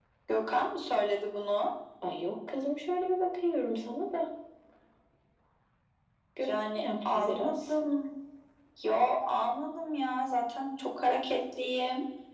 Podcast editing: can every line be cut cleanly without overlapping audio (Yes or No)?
No